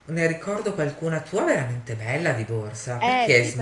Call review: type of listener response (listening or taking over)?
taking over